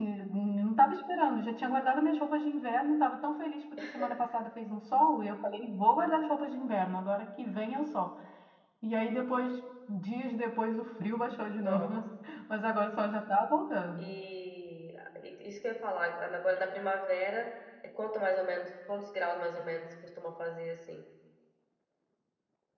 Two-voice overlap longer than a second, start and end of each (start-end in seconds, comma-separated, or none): none